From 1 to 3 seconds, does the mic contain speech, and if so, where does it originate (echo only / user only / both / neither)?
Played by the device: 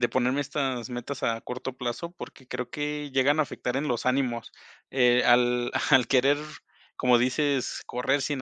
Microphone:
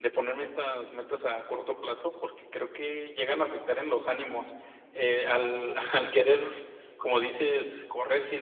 echo only